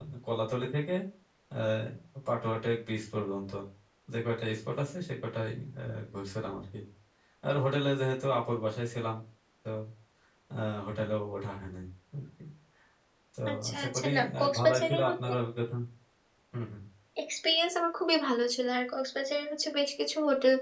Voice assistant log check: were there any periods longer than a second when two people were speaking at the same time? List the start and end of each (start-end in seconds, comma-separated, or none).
13.5-15.3